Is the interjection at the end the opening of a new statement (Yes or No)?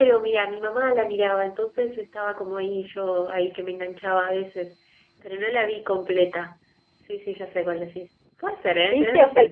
Yes